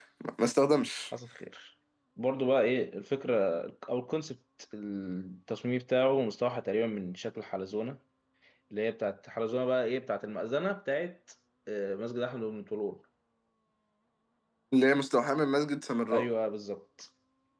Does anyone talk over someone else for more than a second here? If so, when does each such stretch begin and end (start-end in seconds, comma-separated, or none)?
none